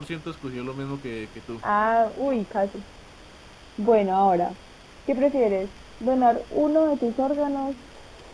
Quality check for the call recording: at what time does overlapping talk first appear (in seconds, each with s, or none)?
none